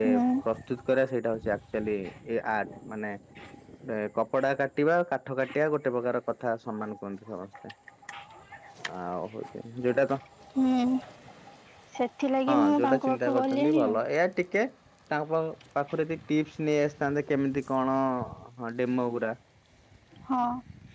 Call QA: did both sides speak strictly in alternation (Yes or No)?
No